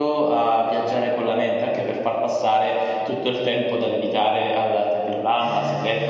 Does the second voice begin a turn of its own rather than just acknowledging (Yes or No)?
Yes